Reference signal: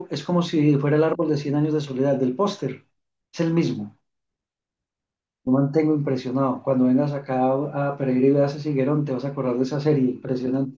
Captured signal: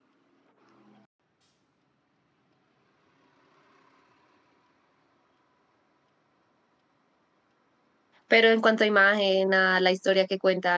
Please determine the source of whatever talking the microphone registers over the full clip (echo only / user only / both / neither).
user only